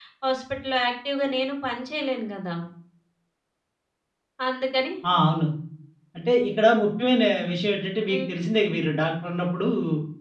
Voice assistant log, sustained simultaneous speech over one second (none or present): none